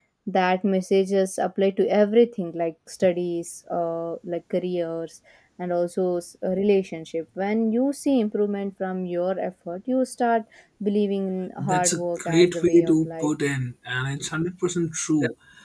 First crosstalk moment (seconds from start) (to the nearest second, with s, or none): 12 s